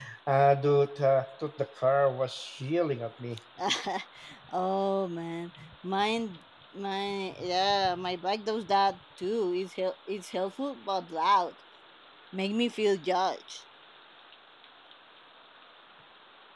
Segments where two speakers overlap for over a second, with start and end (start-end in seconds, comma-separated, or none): none